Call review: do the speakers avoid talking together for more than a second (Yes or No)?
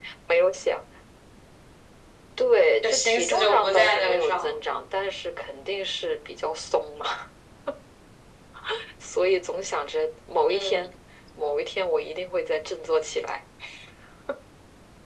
No